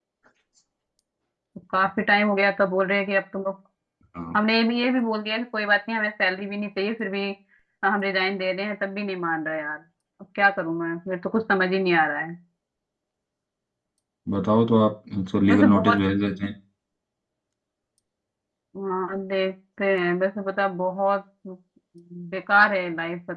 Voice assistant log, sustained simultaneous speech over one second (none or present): none